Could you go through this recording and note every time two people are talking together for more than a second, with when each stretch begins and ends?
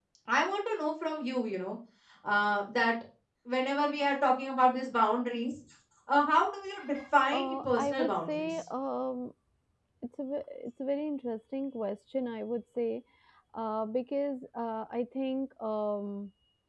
7.3-8.6

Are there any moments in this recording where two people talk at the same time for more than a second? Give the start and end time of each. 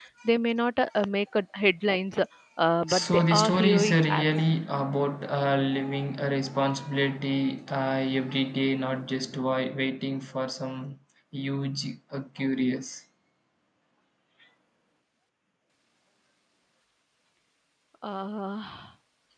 2.9-4.3

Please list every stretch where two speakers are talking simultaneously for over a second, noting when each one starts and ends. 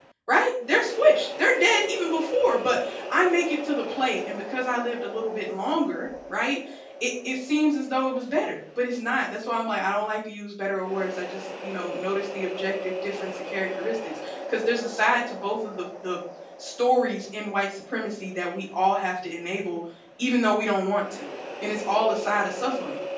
none

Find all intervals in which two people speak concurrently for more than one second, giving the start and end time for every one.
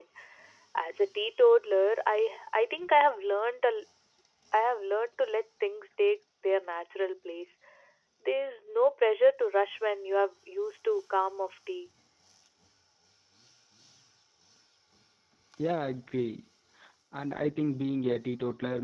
none

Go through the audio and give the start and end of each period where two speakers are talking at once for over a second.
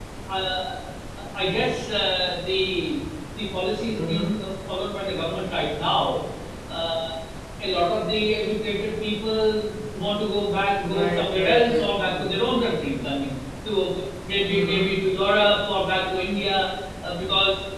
10.9-12.3

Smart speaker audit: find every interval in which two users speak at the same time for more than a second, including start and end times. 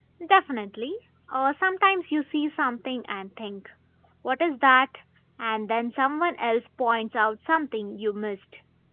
none

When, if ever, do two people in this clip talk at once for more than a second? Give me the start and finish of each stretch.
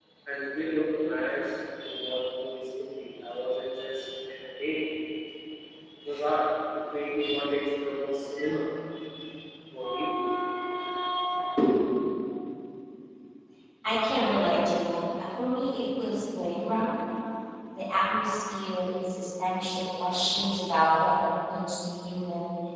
none

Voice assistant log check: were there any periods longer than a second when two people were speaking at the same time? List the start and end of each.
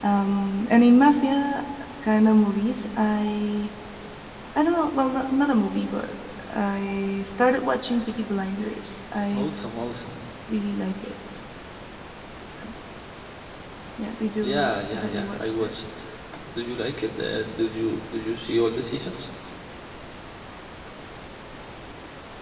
14.4-15.7

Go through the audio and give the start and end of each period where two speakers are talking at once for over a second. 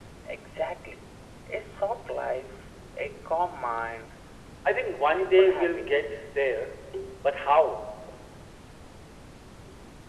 5.0-6.4

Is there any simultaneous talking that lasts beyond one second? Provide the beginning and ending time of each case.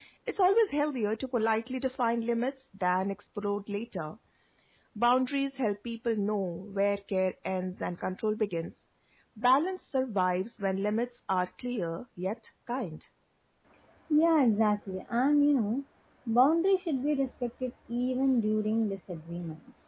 none

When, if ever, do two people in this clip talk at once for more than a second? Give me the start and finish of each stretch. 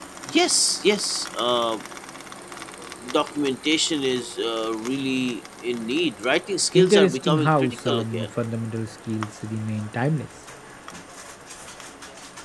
6.7-8.3

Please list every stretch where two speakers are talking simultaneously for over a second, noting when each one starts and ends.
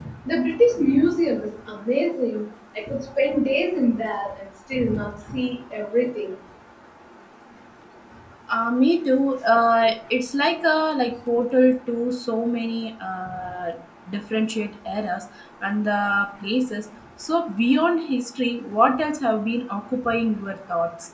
none

